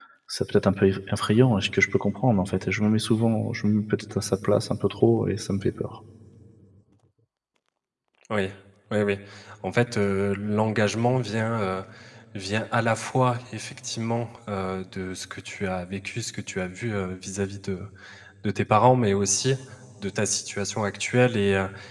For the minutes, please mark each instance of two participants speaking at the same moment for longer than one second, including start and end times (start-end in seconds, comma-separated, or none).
none